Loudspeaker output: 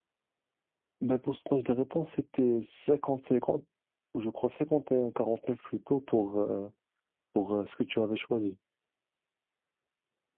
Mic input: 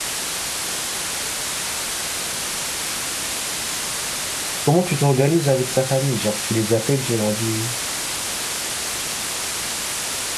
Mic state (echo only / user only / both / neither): user only